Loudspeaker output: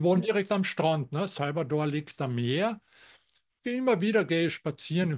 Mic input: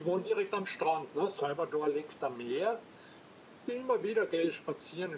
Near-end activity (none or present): none